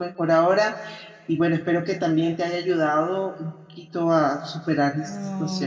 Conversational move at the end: taking over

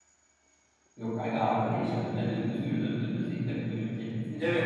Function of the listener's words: taking over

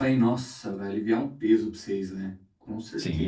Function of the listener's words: taking over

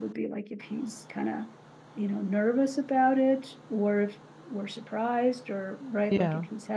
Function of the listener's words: listening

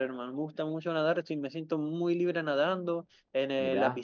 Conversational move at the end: listening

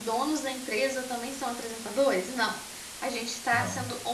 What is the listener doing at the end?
listening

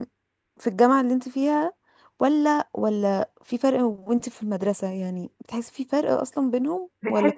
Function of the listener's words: taking over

